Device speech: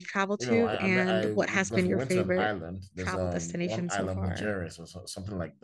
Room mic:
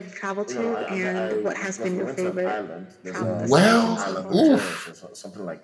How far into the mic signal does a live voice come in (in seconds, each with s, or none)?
3.1 s